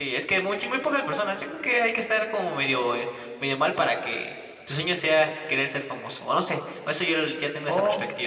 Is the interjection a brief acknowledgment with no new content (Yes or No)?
No